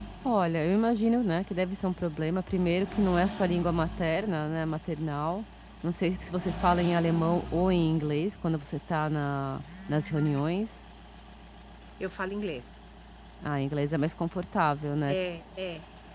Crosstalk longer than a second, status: none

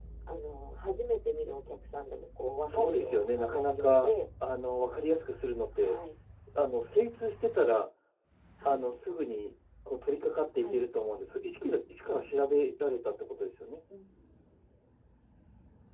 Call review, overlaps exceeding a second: present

